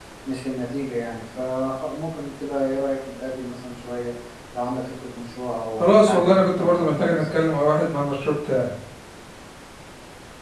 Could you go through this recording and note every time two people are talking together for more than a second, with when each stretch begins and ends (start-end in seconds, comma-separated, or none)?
5.8-7.4